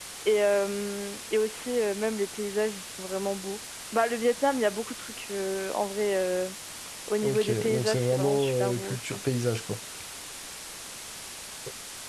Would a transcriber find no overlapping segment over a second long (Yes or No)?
No